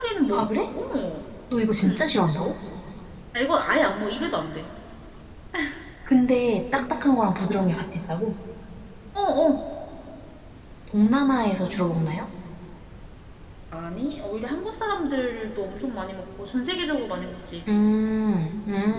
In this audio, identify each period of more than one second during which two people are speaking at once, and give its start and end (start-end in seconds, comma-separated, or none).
none